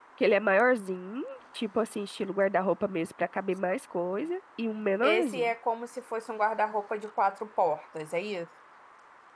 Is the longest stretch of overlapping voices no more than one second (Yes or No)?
Yes